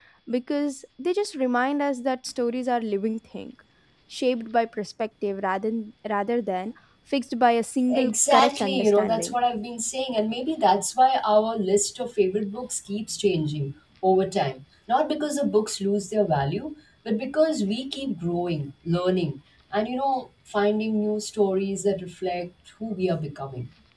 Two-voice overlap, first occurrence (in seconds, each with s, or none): 7.9 s